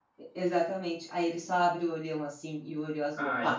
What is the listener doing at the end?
taking over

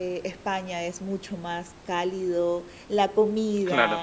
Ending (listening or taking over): listening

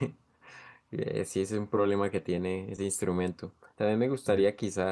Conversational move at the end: listening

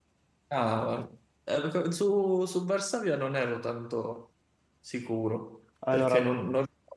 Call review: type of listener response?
listening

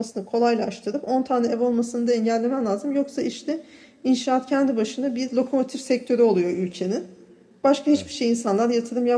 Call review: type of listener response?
listening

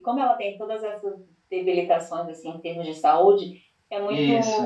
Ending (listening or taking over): listening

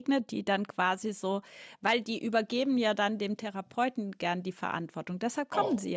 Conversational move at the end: taking over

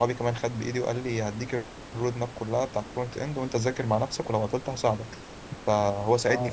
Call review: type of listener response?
taking over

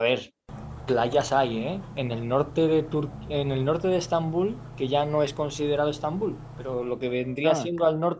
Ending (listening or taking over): listening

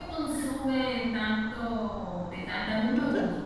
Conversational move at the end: listening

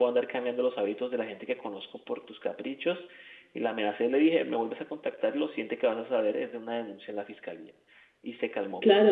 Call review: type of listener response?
taking over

